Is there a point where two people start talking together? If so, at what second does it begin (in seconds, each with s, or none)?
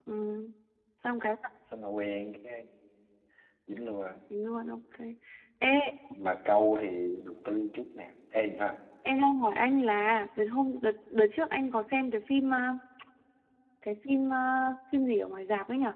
none